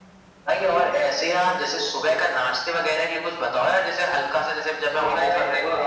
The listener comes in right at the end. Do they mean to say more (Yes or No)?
Yes